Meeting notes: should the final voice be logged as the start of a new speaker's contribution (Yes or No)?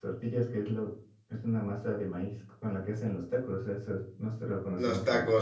Yes